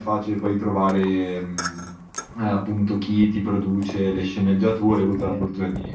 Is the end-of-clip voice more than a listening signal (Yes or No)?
No